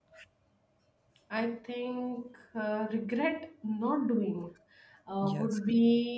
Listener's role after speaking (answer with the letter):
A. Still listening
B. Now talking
A